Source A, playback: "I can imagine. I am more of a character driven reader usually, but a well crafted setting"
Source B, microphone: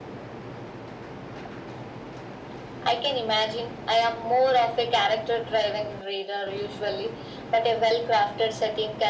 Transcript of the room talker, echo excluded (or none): none